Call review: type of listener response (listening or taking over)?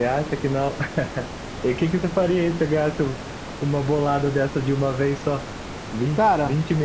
listening